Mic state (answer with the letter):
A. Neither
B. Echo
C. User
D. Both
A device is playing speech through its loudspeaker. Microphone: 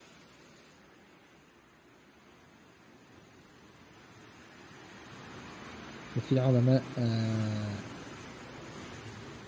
C